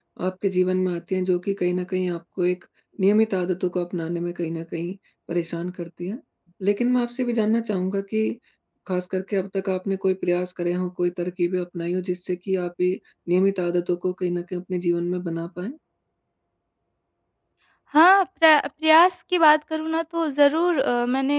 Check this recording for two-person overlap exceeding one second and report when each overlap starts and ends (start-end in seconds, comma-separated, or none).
none